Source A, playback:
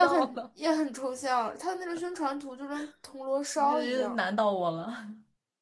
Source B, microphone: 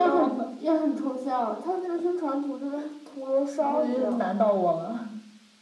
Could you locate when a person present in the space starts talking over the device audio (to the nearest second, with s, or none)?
none